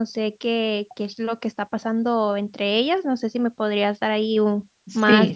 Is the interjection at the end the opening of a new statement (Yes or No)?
Yes